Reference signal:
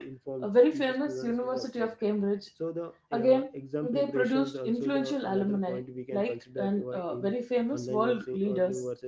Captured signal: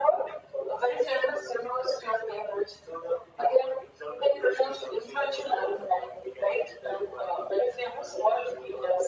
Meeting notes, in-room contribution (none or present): none